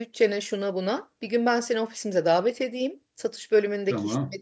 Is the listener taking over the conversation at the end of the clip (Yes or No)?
No